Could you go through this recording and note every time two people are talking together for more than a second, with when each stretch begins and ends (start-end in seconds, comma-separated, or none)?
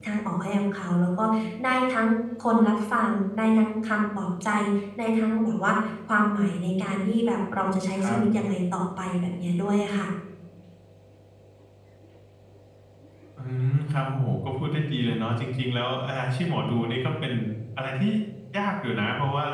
none